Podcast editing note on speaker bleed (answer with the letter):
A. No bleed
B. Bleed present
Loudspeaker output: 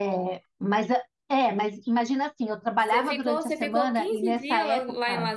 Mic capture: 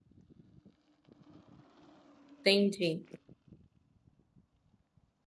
A